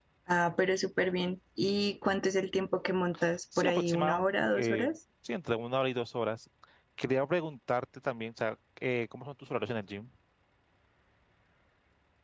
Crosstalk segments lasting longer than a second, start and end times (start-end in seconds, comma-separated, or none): 3.6-4.9